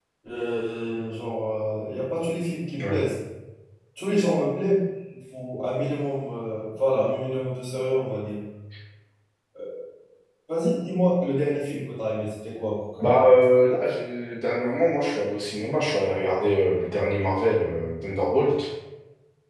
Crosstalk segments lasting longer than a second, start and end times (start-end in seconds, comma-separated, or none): none